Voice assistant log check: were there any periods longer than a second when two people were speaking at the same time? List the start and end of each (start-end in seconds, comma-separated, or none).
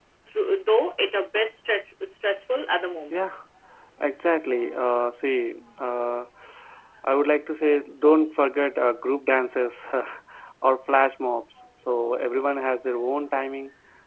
none